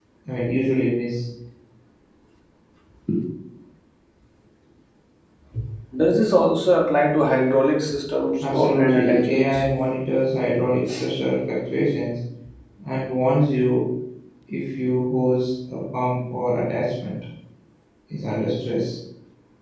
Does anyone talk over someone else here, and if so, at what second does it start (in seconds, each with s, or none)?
8.4 s